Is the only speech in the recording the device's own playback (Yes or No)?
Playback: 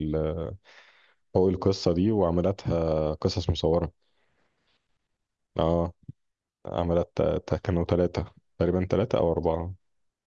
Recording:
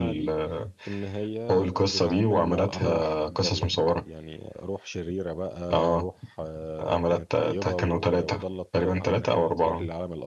No